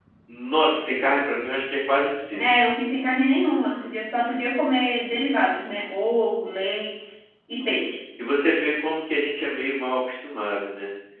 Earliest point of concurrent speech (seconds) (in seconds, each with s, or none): none